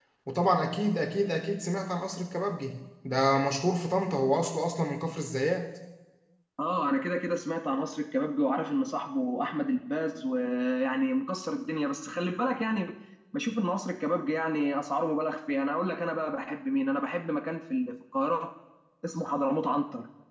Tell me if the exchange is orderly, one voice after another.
Yes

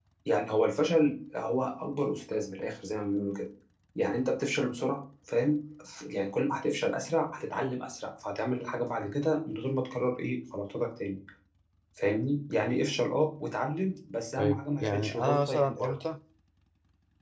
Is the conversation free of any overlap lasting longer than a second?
No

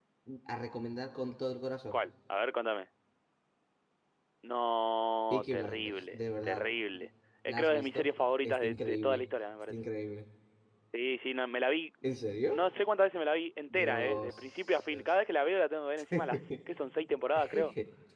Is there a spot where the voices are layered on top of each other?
Yes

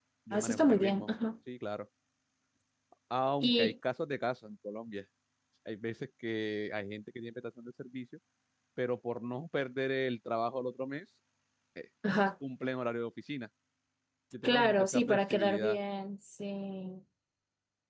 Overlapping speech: Yes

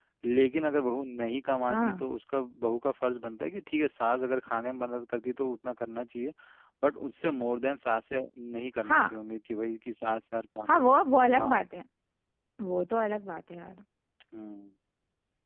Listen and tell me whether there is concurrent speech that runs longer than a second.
No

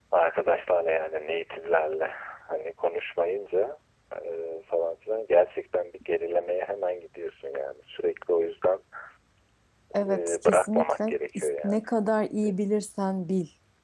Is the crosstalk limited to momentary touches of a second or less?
No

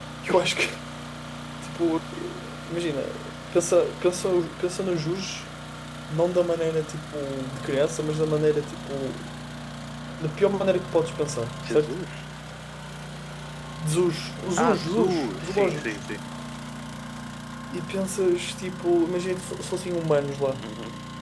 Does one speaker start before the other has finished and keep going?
Yes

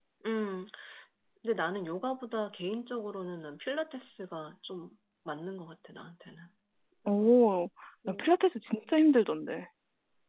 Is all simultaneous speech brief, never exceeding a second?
Yes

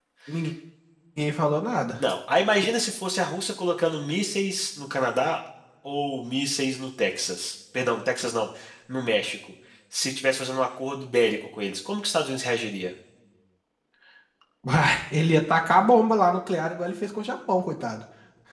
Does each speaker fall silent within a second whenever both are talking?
Yes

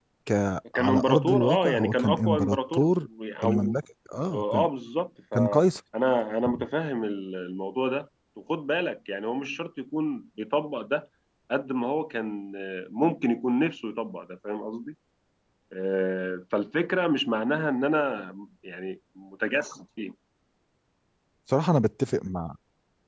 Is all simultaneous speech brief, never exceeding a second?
No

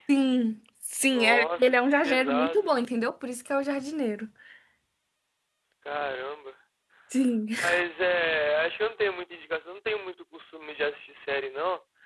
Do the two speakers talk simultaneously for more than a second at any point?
Yes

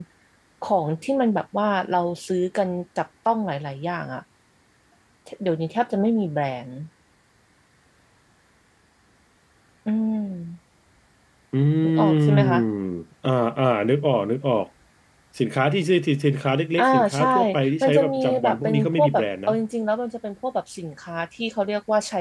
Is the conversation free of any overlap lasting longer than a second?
No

